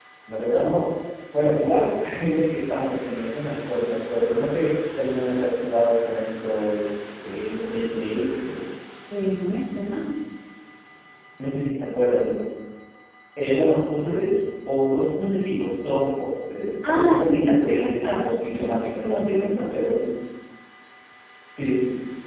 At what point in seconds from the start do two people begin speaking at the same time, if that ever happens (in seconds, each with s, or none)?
16.7 s